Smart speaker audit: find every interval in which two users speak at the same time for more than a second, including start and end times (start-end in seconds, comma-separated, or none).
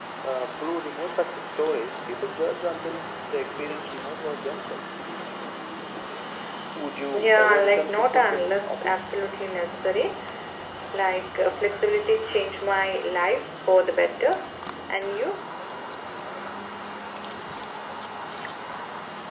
7.1-9.1